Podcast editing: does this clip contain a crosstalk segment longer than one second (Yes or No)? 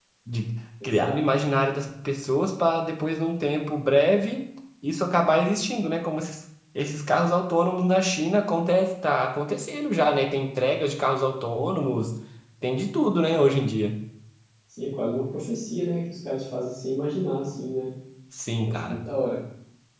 No